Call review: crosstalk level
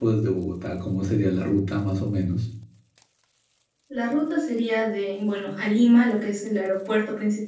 none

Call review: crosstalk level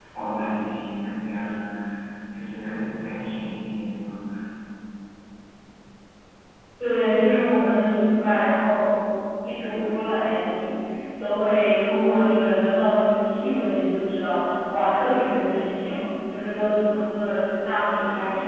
none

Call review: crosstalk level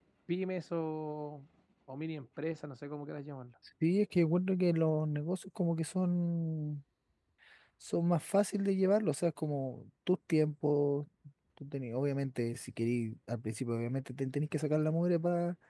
none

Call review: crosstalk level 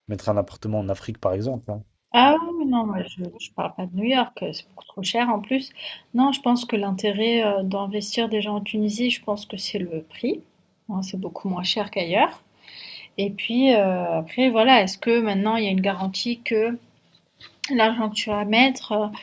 none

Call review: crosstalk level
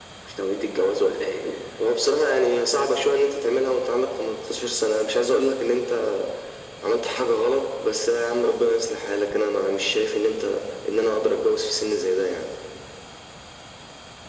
none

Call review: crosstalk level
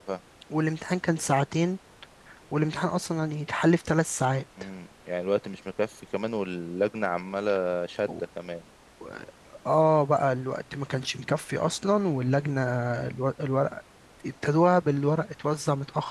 none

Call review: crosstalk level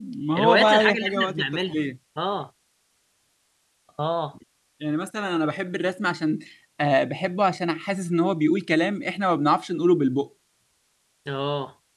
present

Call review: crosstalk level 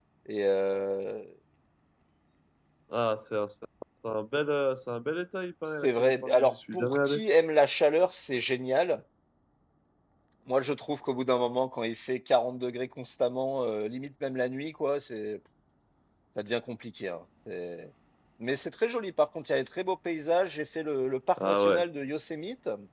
present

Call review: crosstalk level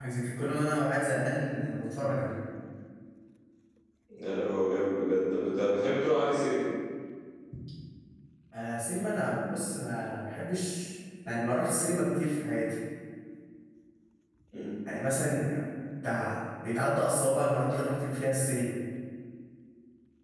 none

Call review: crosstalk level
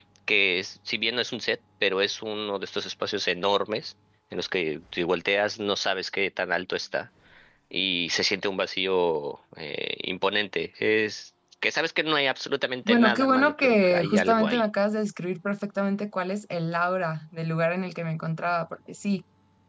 present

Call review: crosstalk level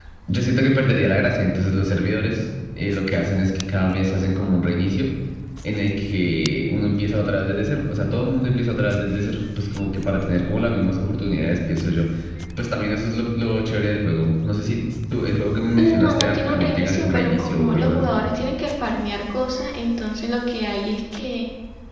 present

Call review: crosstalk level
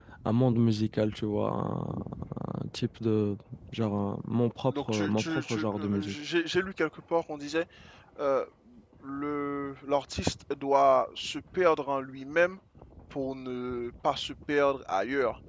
present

